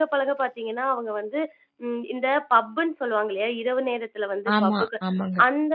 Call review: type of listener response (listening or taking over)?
listening